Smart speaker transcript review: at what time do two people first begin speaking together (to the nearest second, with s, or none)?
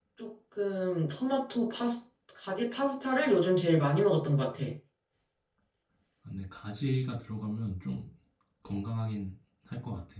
none